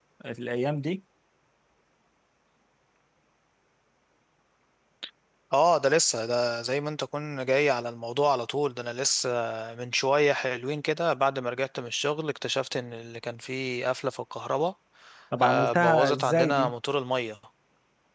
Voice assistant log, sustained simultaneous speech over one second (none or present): present